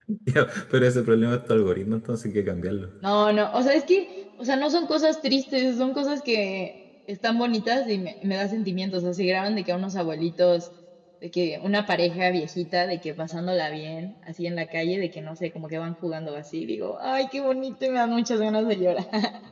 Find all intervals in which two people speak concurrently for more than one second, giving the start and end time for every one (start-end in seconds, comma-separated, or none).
none